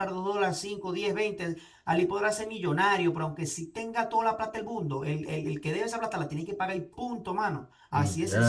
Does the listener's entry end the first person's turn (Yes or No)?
No